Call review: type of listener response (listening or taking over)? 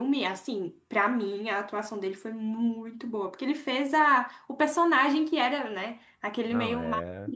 listening